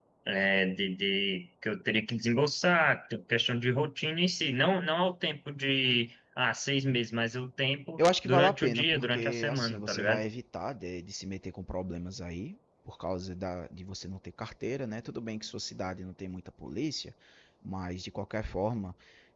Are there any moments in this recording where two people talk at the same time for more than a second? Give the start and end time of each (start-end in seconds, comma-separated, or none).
8.2-10.2